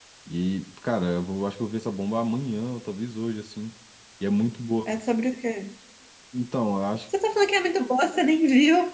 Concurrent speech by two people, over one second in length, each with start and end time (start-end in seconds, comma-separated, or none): none